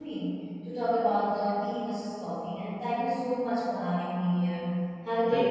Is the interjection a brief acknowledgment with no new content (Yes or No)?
No